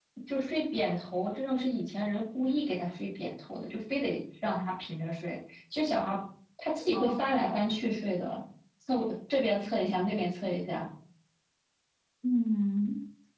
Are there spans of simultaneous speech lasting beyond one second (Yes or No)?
No